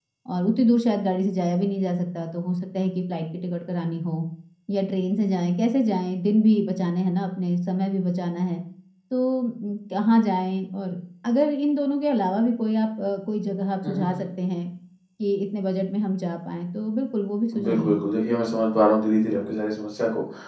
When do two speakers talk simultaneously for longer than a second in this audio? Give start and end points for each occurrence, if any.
none

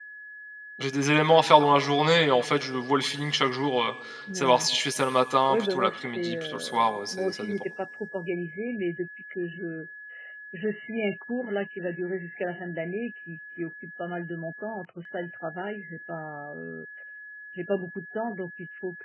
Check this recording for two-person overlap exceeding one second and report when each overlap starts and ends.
5.5-7.5

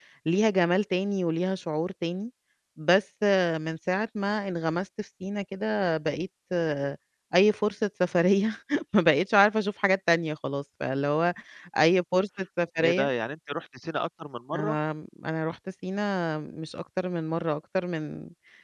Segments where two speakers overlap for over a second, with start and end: none

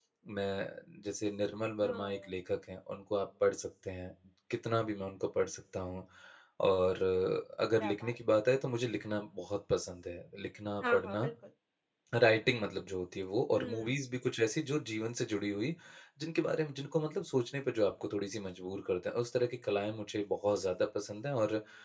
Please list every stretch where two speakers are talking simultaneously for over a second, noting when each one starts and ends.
none

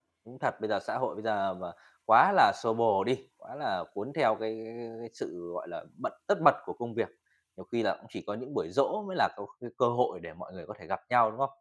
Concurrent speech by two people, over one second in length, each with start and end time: none

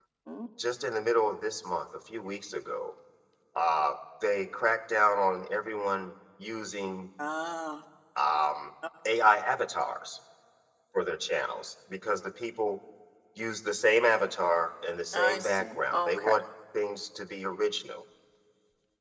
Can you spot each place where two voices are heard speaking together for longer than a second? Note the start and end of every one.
15.1-16.4

